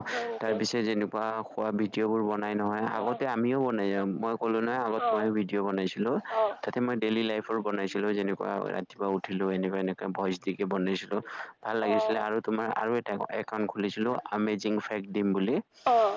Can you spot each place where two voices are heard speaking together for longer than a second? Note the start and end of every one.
none

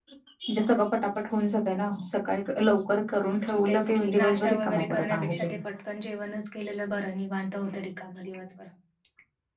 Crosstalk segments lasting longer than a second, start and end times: 3.7-5.5

